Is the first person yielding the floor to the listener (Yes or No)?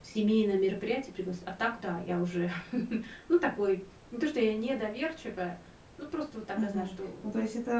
Yes